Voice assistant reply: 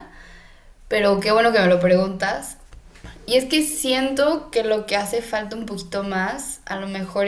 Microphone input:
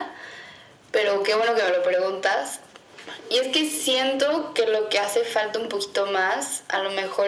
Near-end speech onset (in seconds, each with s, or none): none